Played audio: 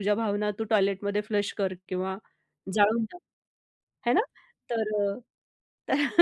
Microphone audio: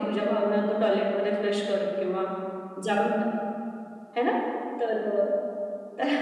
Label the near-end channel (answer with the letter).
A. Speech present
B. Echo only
B